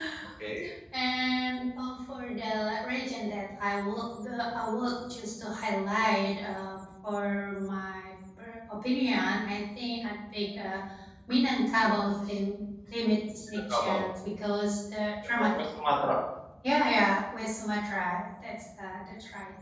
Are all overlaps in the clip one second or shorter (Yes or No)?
Yes